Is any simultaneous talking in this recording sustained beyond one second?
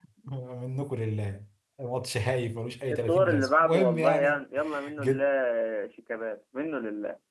Yes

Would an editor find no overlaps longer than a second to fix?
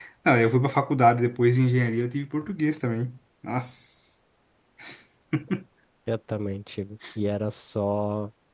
Yes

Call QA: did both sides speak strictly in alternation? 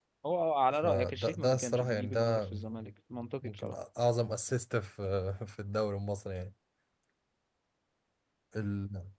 No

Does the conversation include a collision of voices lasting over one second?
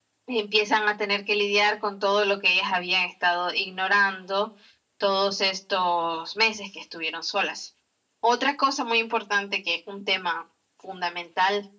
No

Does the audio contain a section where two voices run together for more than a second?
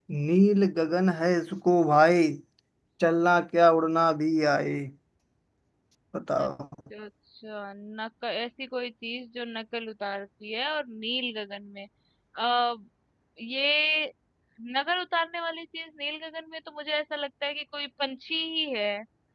No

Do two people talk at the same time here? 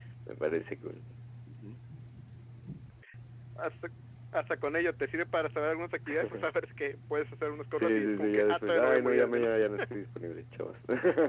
Yes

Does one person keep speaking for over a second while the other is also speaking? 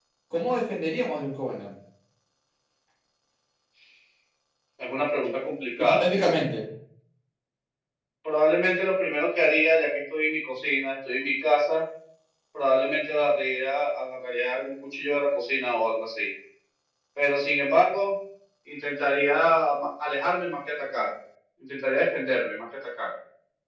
No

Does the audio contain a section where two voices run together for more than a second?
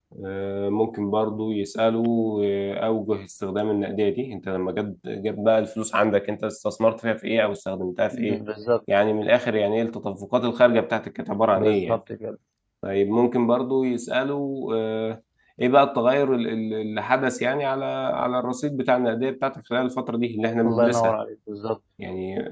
No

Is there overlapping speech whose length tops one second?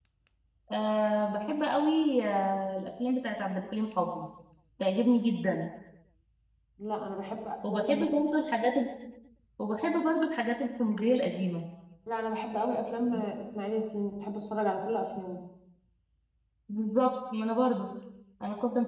No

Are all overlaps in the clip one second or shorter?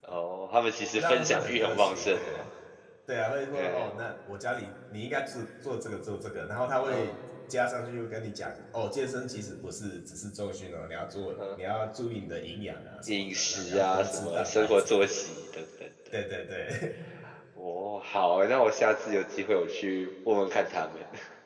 No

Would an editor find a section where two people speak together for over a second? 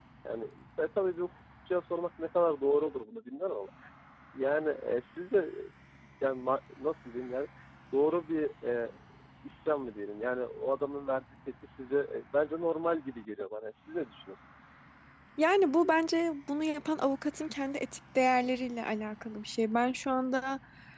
No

